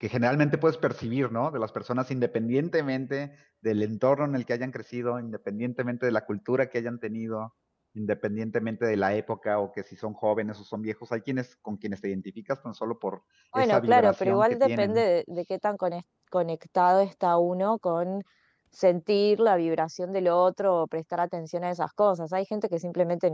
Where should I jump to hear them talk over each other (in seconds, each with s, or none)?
13.5 s